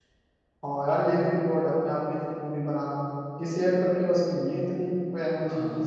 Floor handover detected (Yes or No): Yes